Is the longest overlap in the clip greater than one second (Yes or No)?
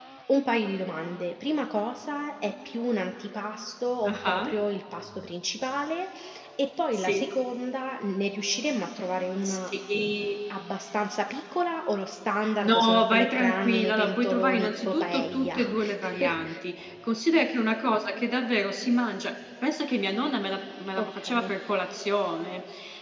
Yes